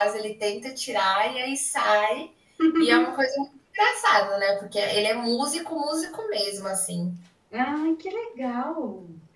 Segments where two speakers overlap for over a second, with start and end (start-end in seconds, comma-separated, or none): none